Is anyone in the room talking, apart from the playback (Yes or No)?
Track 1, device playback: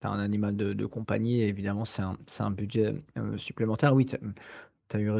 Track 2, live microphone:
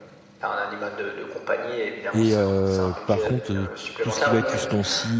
Yes